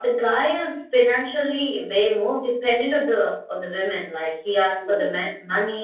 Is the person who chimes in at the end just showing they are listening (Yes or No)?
Yes